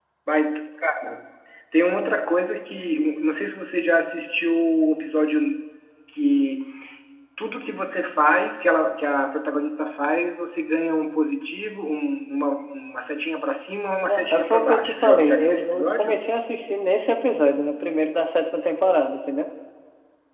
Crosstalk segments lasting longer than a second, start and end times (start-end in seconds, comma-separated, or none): 14.1-16.2